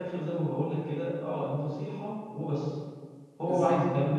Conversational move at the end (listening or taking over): listening